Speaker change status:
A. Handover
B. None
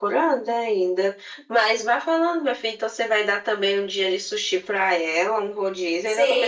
A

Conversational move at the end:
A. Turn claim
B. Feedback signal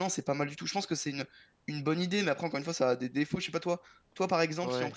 B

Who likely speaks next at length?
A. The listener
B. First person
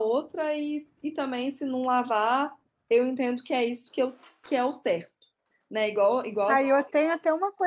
A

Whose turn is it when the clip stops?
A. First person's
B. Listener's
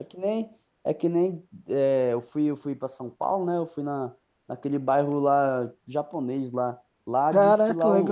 A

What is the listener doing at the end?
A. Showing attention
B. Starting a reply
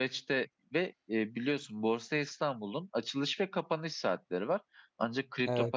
A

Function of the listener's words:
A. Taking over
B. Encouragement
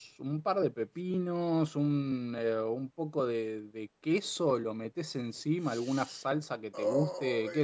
B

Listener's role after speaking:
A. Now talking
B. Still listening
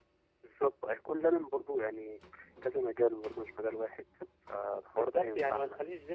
A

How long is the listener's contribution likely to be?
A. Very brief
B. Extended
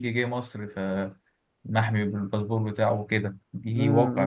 B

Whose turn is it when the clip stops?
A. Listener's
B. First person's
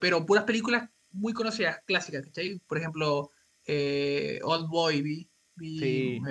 B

